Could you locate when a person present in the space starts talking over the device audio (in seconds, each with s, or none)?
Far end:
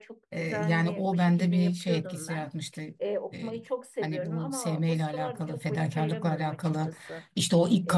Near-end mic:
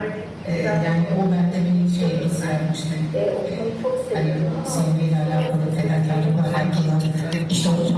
6.0 s